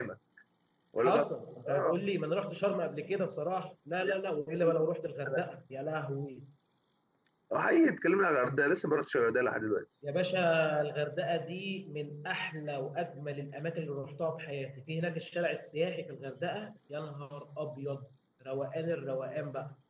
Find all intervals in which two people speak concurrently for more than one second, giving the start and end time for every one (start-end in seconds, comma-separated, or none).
none